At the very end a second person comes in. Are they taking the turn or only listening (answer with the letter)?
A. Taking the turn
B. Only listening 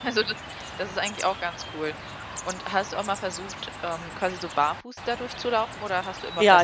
A